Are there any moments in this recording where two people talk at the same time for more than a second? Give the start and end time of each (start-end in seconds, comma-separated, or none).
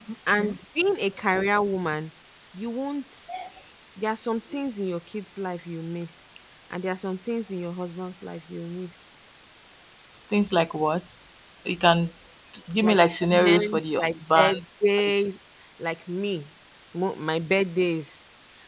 12.8-14.6